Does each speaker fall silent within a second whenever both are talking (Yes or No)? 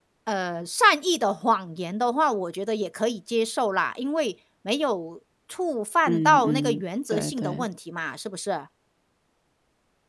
No